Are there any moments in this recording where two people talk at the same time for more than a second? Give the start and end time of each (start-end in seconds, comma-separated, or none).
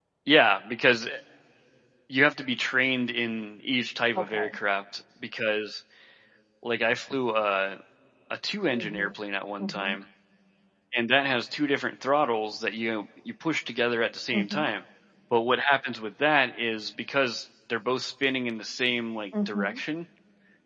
none